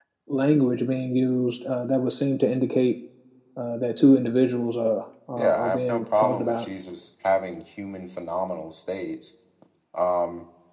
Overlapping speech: Yes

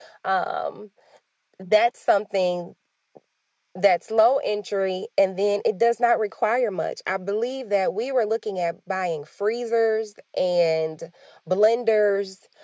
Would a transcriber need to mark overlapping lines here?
No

